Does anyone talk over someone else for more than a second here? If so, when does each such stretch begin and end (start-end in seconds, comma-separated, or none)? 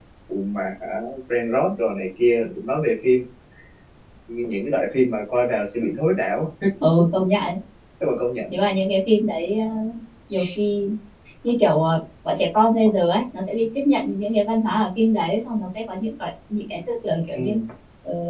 none